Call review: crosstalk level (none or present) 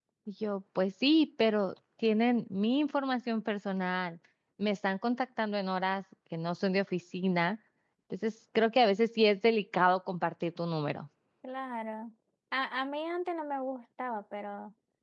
none